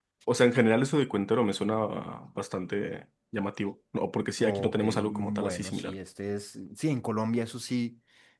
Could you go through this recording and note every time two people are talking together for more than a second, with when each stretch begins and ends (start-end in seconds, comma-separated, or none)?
4.4-5.9